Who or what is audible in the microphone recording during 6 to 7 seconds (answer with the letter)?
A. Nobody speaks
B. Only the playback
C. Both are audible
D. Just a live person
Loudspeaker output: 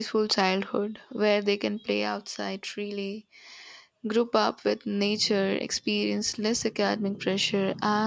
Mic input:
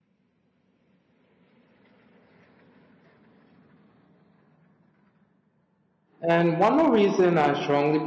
D